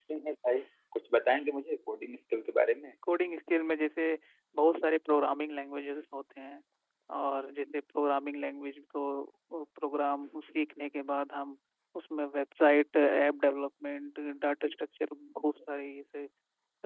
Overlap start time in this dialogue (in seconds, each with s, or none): none